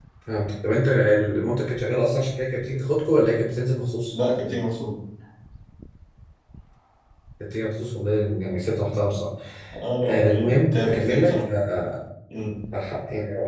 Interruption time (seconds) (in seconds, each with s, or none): 10.0 s